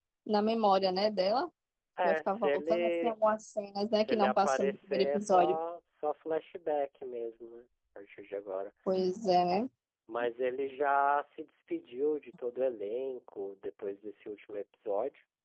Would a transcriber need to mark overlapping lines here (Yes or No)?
Yes